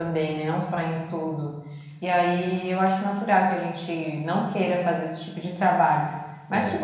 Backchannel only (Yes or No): Yes